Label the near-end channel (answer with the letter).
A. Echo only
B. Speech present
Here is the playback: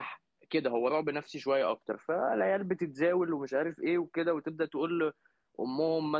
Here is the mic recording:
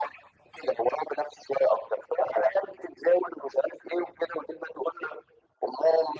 A